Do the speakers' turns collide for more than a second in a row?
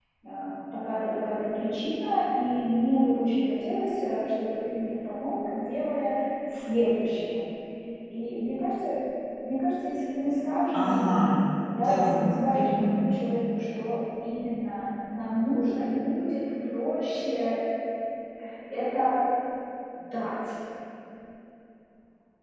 Yes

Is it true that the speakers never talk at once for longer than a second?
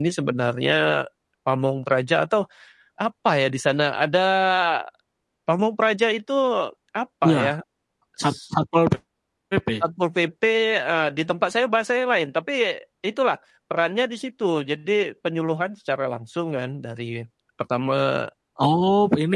Yes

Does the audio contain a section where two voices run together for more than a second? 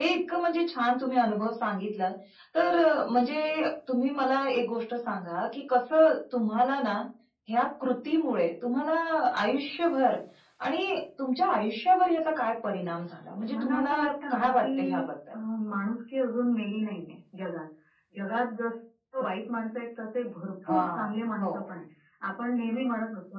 Yes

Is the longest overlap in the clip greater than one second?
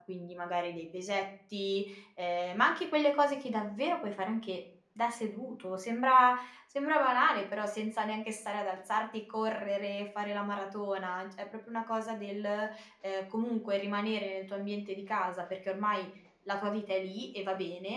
No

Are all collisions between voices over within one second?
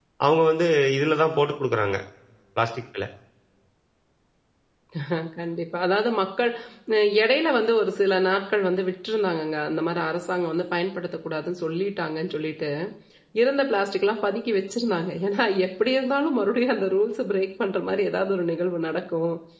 Yes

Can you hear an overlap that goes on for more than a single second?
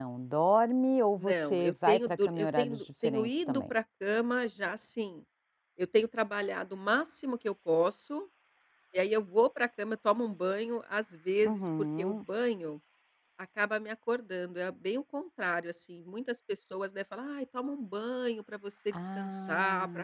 Yes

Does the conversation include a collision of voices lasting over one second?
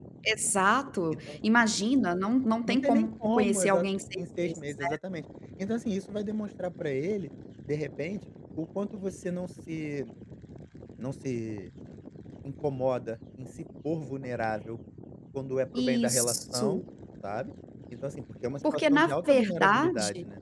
Yes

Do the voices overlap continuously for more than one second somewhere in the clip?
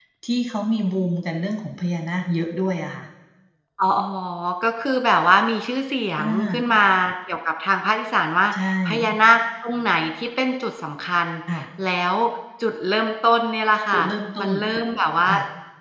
No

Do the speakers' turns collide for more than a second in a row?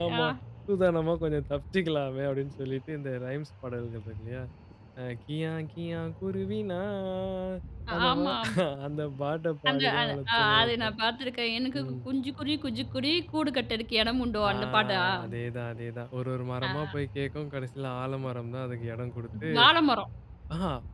Yes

